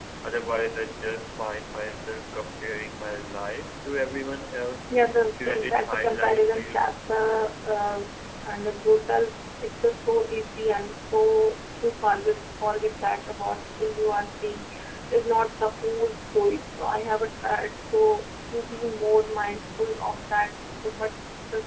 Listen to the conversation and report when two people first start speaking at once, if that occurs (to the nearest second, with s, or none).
5 s